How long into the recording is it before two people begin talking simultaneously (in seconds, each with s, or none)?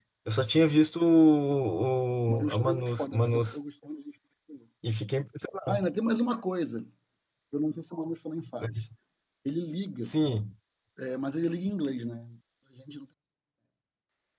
2.3 s